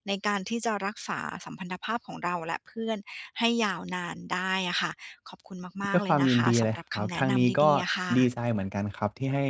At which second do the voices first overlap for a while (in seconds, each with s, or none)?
5.9 s